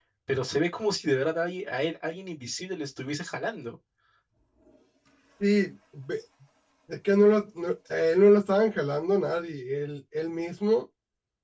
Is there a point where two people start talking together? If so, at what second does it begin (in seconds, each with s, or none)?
none